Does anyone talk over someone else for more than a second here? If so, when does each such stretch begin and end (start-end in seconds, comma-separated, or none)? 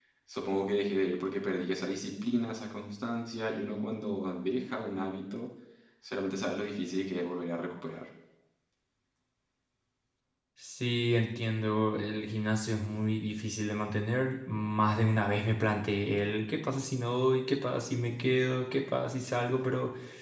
none